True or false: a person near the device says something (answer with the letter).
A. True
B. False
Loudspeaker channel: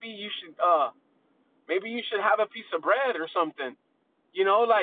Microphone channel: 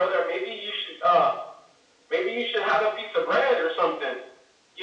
B